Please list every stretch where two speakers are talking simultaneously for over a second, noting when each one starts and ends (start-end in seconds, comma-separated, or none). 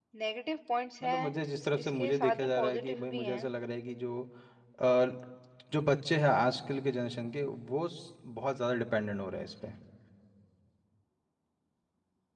1.8-3.5